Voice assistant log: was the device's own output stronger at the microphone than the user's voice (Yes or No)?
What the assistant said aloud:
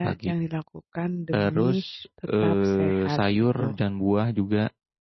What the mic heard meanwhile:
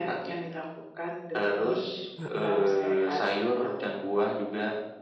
Yes